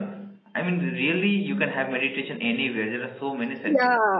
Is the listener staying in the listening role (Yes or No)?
No